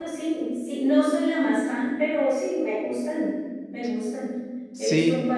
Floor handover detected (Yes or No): No